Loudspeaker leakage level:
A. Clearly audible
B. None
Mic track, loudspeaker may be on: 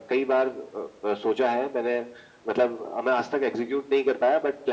A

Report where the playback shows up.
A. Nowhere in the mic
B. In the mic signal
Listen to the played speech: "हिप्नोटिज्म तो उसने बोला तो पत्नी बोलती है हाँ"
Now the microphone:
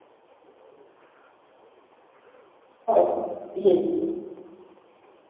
A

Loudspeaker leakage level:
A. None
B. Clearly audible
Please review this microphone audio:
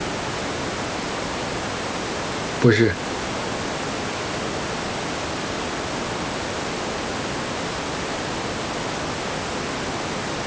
A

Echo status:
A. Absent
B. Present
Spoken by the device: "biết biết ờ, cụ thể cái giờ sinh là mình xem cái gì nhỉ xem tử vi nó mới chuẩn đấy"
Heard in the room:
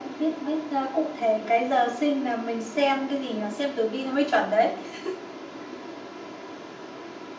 B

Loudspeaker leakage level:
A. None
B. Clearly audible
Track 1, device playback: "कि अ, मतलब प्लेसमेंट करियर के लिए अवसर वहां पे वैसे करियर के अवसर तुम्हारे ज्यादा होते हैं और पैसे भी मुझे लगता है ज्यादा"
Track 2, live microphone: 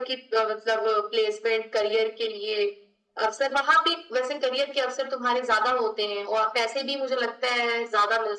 B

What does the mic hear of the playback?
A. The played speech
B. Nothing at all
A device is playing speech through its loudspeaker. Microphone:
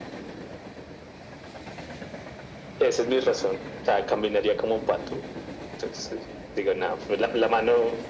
A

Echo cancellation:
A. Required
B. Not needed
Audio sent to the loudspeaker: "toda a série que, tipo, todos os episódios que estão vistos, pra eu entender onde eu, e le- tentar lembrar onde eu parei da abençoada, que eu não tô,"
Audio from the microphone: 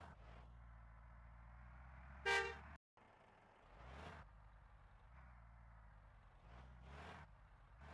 B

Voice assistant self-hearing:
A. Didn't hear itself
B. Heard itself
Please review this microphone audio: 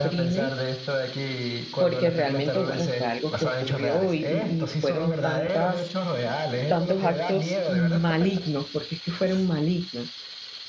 B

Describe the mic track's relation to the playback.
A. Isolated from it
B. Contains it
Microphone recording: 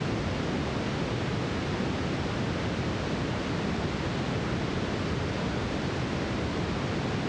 A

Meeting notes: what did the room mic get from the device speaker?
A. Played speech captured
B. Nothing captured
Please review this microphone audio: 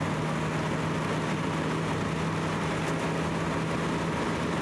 B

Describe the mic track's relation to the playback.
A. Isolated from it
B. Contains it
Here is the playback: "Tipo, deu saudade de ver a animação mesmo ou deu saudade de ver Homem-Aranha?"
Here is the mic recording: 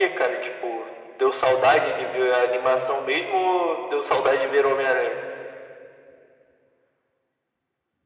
B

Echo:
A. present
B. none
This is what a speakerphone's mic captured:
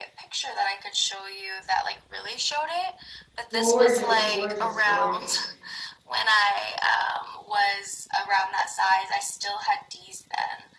A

